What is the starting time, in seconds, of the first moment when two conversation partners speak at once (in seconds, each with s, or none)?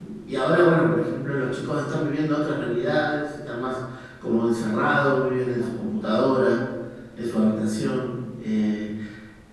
none